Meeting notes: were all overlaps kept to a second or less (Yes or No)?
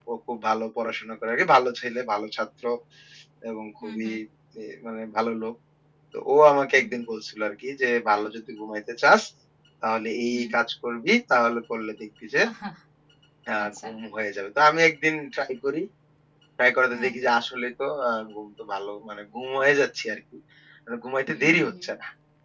Yes